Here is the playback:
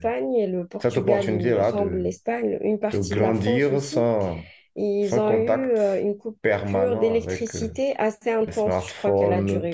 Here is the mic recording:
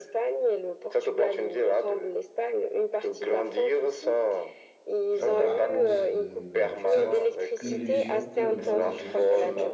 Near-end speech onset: 5.2 s

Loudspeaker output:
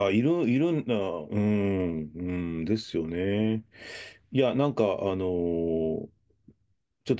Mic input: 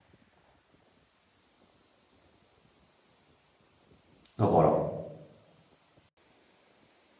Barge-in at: 4.4 s

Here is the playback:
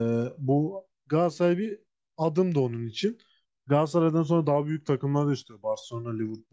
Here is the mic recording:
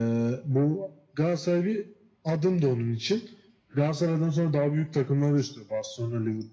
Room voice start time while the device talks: none

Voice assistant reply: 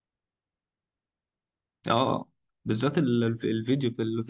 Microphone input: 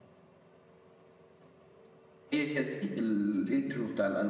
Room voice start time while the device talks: 2.3 s

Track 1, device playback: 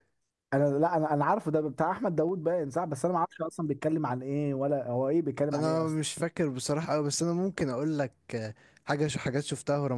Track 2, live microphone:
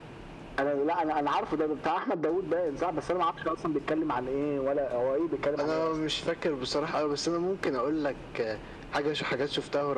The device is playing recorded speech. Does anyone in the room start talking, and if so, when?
none

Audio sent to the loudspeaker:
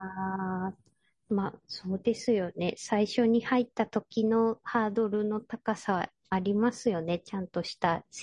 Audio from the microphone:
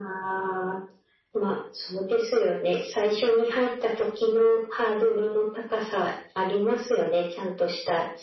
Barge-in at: none

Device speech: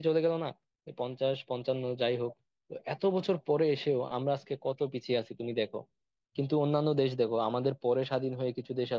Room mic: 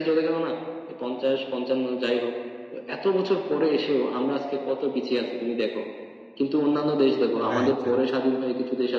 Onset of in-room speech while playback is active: 7.5 s

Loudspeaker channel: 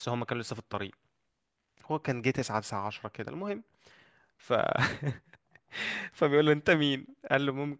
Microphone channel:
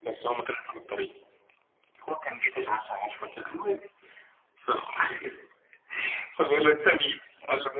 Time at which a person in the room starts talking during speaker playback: none

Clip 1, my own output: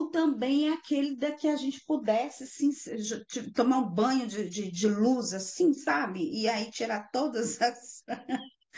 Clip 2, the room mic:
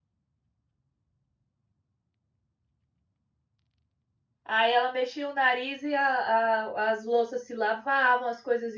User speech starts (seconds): 4.4 s

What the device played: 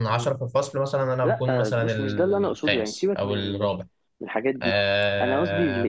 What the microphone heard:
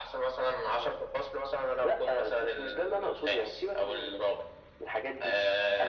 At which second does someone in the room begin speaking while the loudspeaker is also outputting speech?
none

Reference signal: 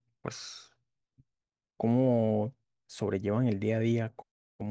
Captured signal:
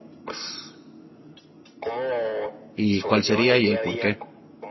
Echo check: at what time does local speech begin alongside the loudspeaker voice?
2.7 s

